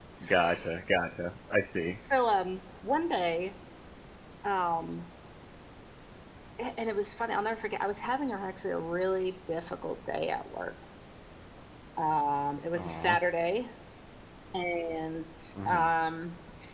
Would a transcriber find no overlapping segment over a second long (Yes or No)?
Yes